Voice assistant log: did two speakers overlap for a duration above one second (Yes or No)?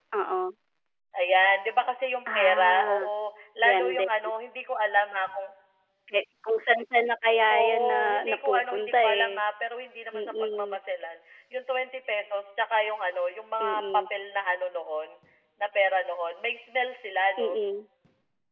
Yes